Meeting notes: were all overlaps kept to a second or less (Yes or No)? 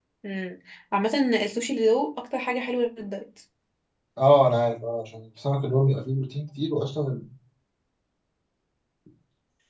Yes